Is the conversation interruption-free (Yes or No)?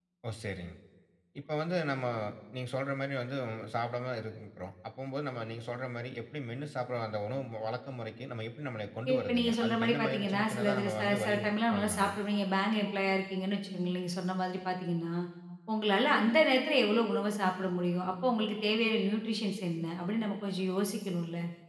No